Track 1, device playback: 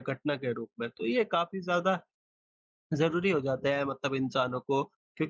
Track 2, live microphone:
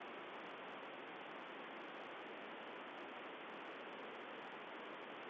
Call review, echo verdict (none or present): none